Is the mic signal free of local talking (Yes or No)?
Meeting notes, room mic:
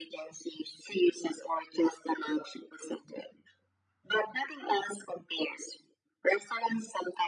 Yes